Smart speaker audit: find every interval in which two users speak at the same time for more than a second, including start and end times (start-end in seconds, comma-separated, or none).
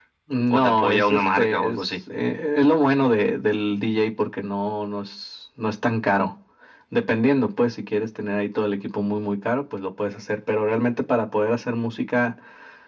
0.5-1.8